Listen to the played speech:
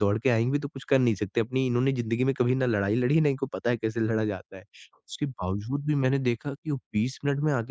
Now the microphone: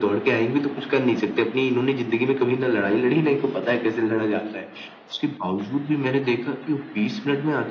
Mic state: echo only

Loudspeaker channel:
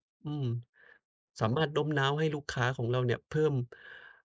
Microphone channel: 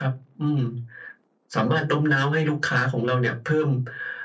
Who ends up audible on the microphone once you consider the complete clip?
echo only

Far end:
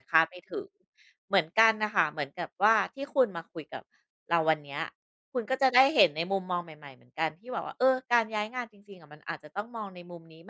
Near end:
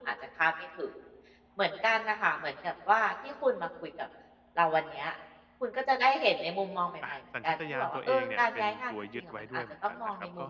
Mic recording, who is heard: both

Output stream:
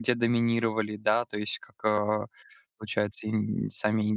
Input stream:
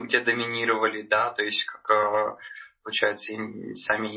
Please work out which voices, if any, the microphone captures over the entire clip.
echo only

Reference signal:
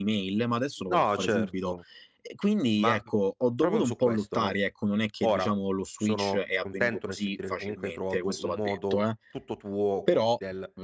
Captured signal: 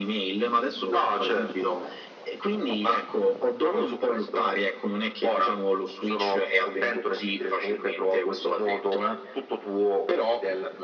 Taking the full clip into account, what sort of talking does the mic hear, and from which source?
echo only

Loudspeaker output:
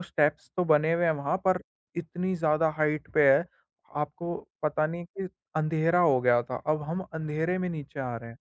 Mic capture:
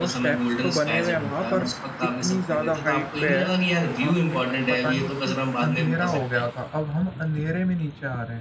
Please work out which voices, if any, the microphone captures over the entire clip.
both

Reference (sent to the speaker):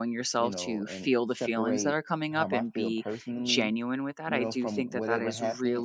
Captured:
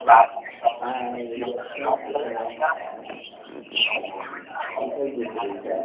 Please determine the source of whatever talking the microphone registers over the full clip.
both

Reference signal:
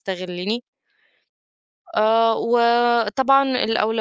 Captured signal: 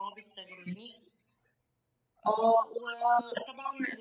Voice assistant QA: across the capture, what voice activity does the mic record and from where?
echo only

